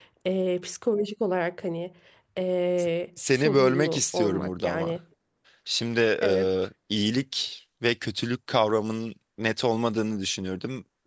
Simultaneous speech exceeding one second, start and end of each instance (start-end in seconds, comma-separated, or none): 3.3-5.0